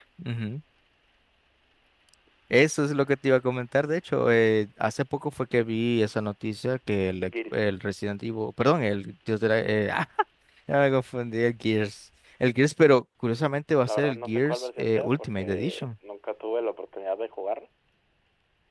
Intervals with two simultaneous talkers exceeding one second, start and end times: 13.9-15.9

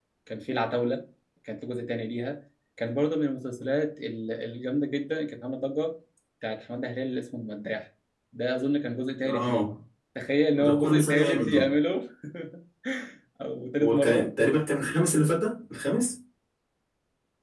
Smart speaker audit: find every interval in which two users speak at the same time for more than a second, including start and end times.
10.5-11.8

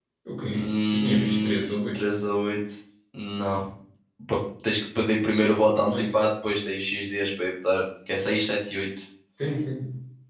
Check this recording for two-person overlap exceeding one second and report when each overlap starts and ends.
0.5-2.1

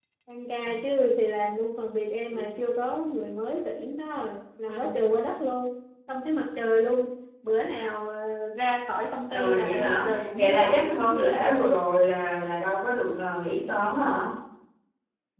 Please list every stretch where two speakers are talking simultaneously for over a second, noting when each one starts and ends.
9.3-11.7

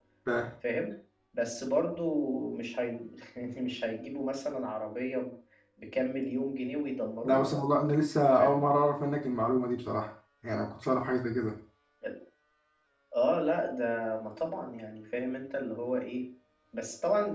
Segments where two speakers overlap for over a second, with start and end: none

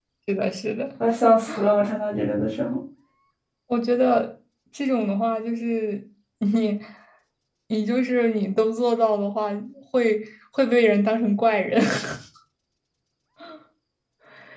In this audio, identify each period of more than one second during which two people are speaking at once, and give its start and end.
none

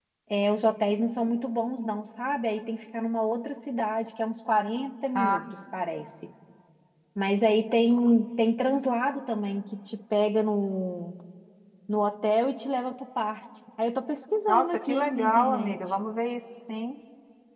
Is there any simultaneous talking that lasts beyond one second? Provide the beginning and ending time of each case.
14.5-15.8

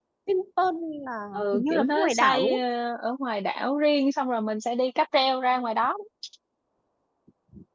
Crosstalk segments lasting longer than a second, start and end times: 1.3-2.6

